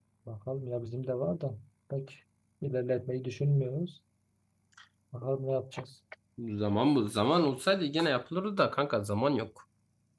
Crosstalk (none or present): none